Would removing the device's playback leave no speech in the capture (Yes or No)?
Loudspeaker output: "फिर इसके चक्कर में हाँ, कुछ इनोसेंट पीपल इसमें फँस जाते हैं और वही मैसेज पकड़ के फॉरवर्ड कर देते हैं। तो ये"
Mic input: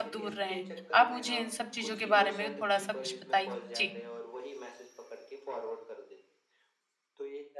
No